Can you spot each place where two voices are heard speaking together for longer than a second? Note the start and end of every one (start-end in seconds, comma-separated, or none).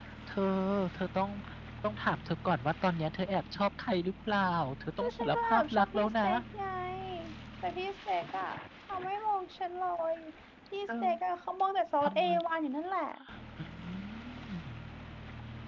5.0-6.2